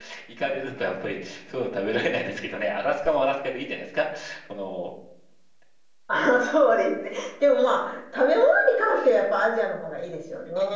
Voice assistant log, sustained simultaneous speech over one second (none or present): none